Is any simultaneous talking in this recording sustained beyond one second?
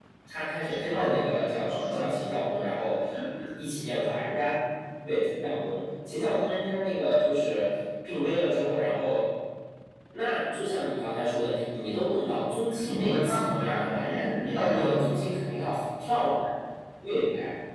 Yes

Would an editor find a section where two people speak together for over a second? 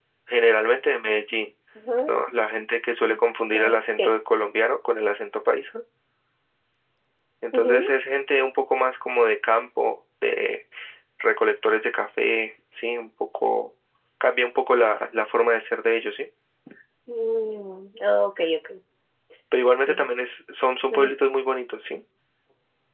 No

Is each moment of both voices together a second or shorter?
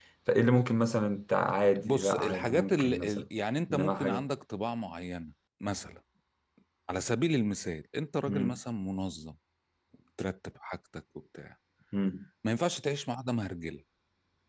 No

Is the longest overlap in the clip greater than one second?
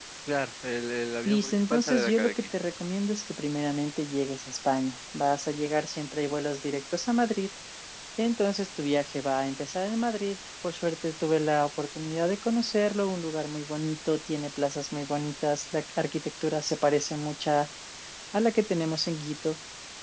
Yes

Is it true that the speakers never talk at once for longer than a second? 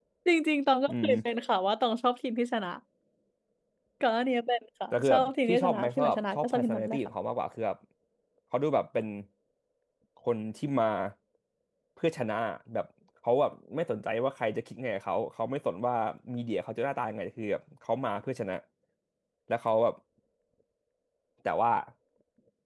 No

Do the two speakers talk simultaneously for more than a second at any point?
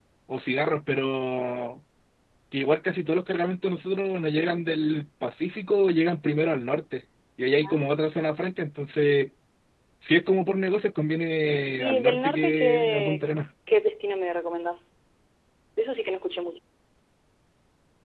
Yes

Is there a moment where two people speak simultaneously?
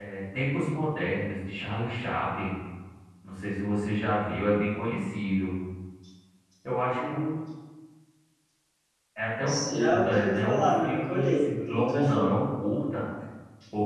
Yes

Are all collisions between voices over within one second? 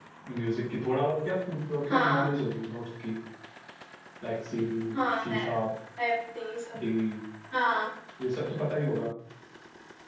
Yes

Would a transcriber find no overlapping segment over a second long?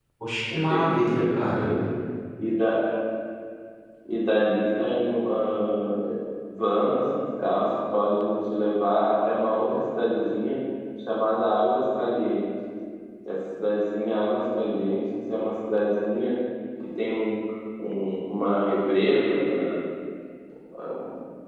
No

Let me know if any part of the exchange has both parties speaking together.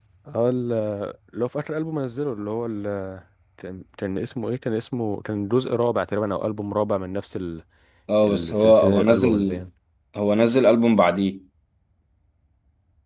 Yes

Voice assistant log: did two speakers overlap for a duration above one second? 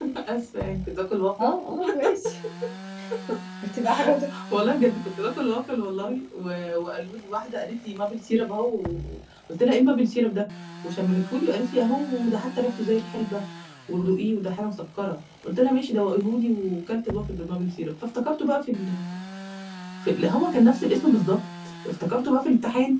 No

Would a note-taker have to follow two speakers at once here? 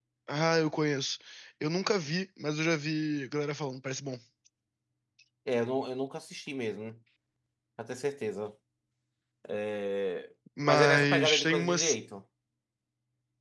Yes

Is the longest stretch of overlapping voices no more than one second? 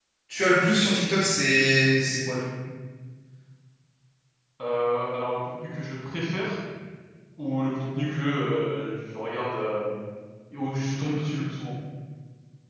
Yes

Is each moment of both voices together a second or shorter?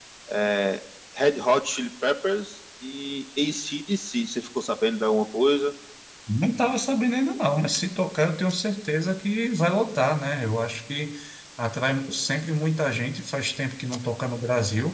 Yes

